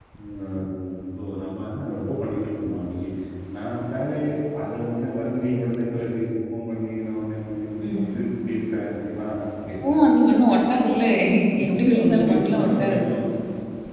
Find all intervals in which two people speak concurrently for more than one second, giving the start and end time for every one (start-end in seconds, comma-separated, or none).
11.7-13.1